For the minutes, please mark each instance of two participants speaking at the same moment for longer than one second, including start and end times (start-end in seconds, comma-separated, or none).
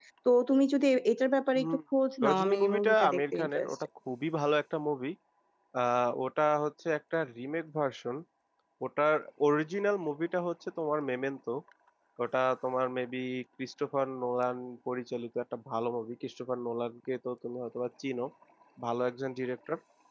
2.2-3.8